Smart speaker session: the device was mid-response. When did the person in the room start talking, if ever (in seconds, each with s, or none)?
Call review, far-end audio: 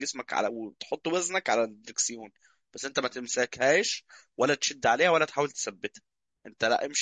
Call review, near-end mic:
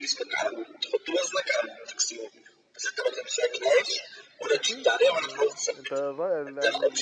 4.4 s